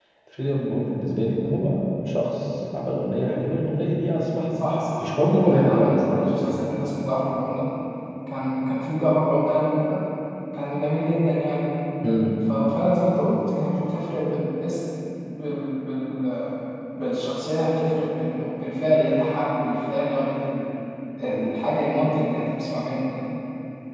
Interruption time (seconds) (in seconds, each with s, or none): 5.0 s